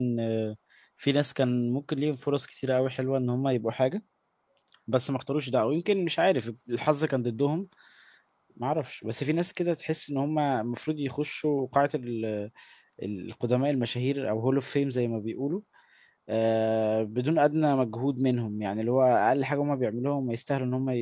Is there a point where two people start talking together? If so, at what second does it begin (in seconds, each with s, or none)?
none